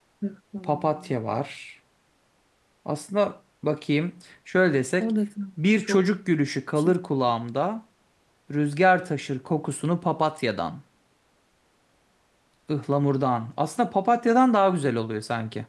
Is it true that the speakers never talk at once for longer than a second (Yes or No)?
Yes